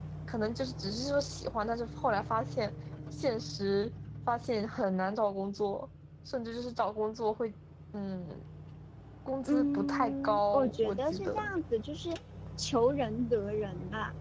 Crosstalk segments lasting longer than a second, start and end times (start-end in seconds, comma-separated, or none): 9.5-11.5